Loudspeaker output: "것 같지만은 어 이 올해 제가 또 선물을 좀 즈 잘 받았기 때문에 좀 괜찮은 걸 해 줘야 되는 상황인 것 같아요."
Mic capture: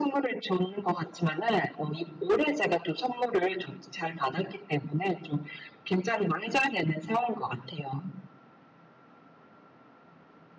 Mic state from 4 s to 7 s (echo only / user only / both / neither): echo only